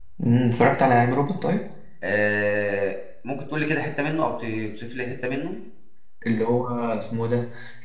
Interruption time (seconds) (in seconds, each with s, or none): none